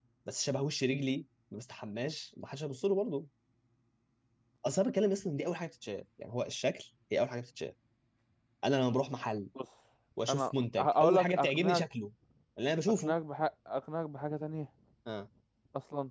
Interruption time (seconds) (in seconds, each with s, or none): 10.3 s